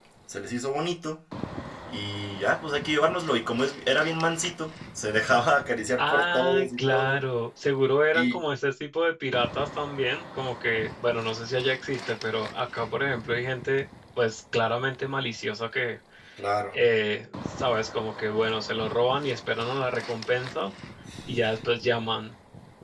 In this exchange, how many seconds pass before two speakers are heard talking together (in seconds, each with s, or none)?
6.0 s